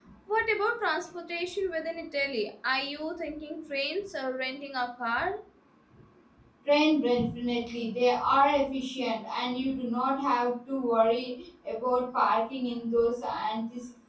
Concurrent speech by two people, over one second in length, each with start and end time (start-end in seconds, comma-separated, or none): none